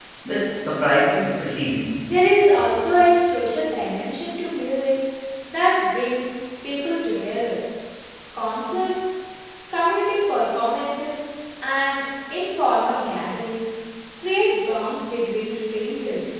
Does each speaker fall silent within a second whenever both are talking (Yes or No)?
Yes